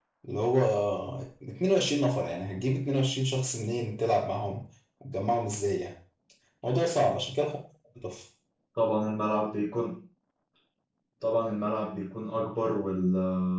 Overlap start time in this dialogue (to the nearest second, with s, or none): none